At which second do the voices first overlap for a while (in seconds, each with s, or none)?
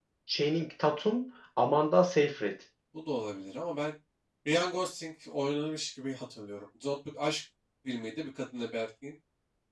none